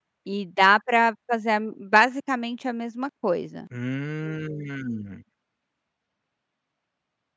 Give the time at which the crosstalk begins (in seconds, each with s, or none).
none